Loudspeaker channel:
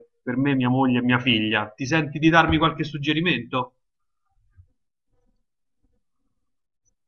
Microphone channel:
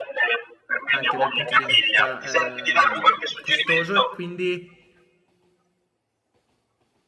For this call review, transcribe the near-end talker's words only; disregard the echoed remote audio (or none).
anche dal punto di vista ehm, costoso e quindi